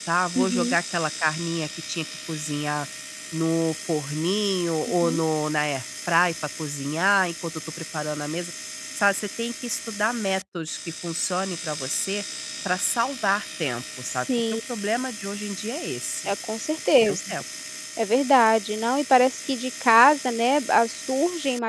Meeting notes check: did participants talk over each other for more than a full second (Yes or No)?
No